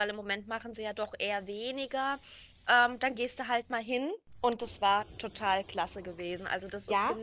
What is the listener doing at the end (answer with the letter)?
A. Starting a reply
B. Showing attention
B